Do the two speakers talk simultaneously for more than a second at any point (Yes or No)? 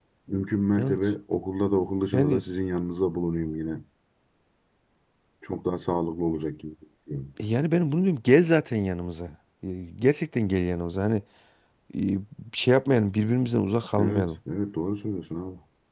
No